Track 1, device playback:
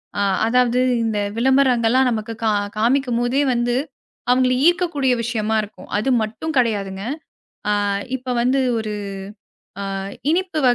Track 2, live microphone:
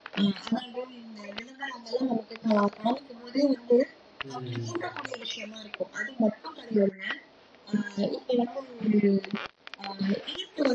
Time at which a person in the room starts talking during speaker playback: 4.2 s

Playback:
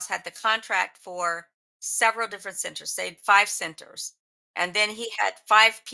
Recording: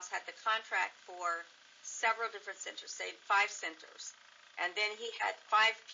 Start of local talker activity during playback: none

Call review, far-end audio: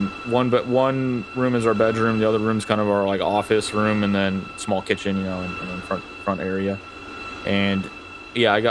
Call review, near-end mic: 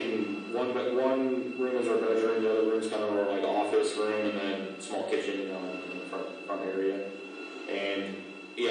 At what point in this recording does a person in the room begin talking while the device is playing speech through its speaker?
none

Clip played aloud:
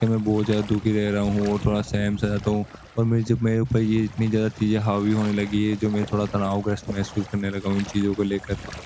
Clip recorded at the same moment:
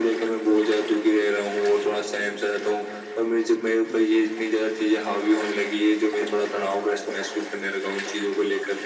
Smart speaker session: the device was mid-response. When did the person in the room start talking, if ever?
none

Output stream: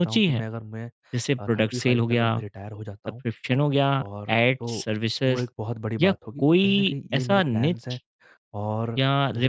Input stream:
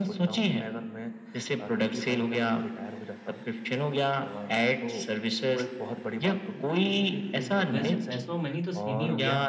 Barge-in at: 7.7 s

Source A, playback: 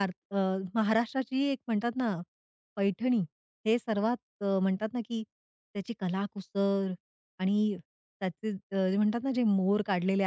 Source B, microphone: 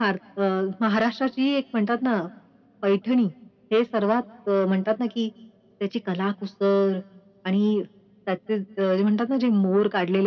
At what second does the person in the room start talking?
none

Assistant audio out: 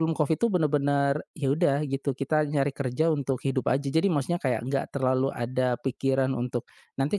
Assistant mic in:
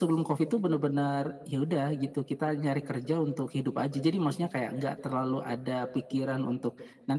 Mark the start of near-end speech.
none

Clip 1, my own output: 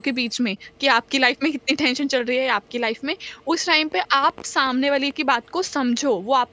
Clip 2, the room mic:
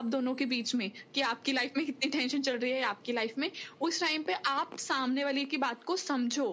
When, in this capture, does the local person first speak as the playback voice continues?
none

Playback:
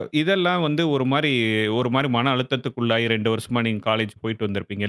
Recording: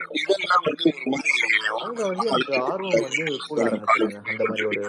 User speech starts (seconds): 1.8 s

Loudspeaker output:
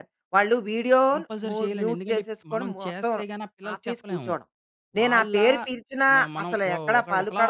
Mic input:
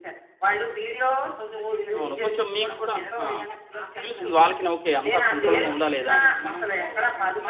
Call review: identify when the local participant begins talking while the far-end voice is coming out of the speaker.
2.0 s

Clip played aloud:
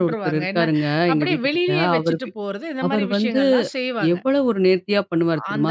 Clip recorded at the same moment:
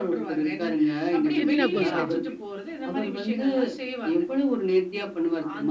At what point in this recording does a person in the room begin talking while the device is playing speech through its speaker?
1.4 s

